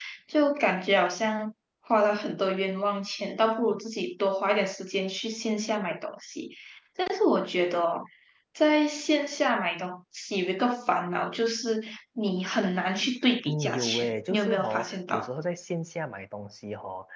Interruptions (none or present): present